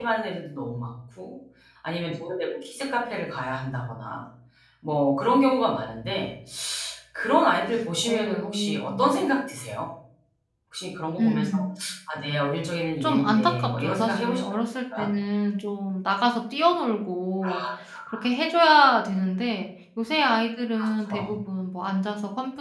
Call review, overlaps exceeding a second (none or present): present